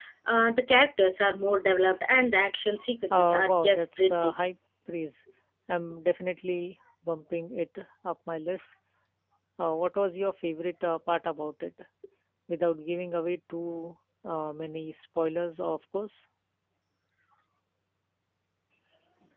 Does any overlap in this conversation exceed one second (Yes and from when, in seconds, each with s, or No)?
Yes, from 3.1 s